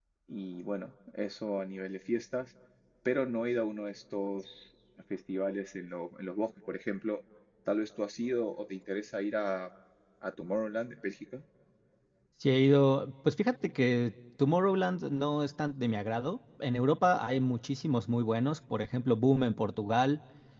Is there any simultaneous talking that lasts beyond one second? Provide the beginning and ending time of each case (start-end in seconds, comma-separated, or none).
none